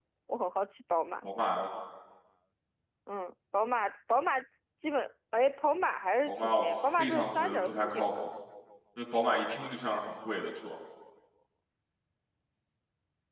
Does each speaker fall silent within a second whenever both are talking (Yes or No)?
No